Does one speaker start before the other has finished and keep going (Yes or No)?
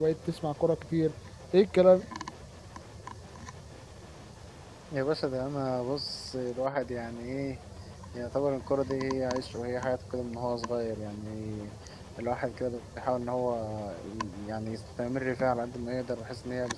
No